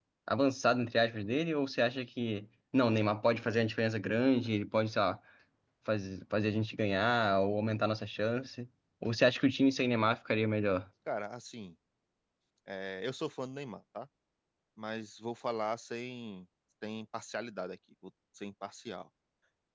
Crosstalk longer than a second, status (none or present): none